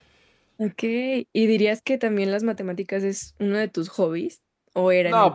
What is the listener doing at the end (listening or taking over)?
taking over